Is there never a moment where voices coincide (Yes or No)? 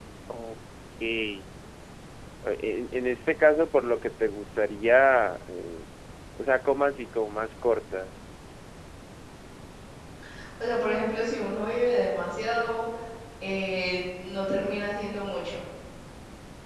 Yes